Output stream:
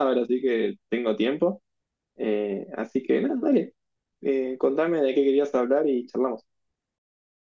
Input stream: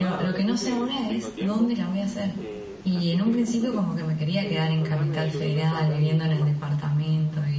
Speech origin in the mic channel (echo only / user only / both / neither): both